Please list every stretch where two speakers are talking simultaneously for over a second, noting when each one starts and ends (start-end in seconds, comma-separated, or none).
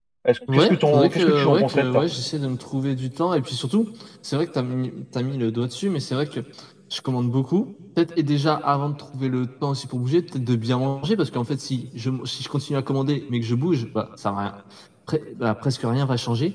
0.5-2.0